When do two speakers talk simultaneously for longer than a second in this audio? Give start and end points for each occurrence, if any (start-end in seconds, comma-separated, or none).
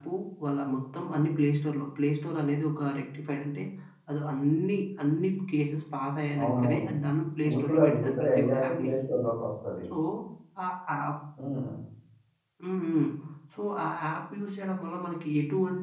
7.4-8.9